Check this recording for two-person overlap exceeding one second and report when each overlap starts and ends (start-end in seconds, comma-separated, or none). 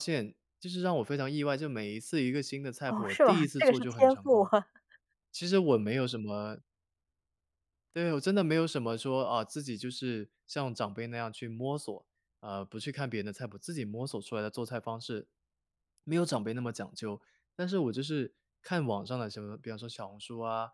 2.9-4.4